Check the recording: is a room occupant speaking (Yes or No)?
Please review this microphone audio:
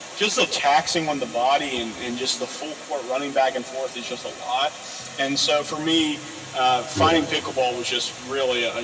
Yes